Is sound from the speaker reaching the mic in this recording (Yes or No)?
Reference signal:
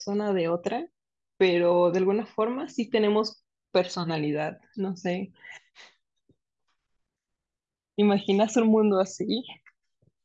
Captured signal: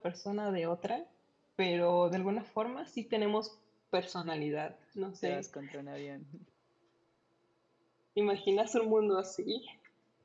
Yes